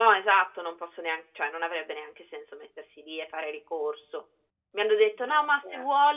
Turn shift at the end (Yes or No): No